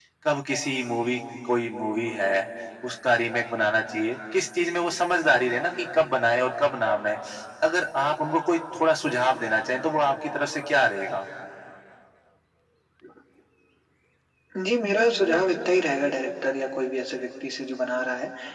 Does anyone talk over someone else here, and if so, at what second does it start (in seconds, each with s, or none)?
none